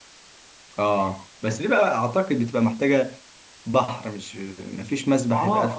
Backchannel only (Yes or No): No